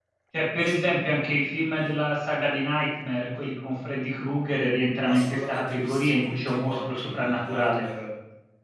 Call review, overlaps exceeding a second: present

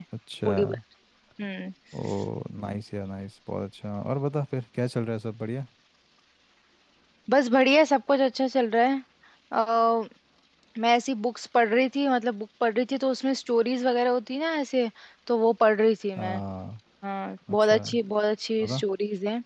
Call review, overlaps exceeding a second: none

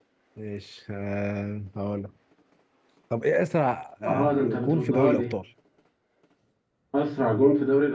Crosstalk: present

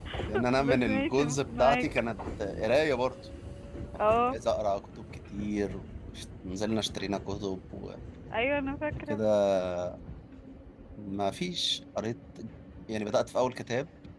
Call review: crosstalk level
present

